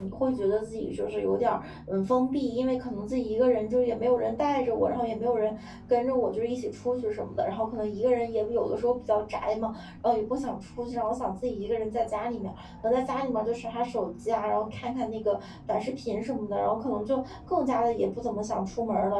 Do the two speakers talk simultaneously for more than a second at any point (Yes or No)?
No